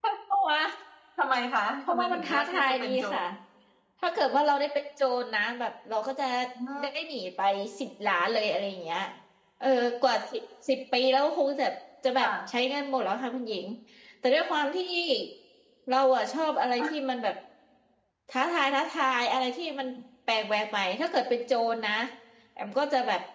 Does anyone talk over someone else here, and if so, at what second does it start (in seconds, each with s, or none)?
1.9 s